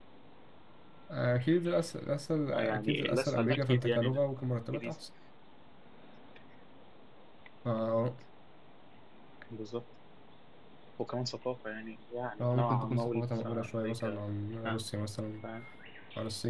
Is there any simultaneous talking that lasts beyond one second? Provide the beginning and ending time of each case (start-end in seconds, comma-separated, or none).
2.5-4.1, 12.4-14.2